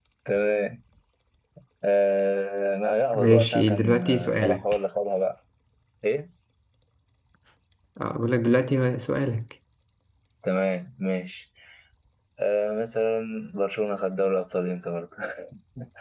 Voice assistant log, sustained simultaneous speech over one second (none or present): present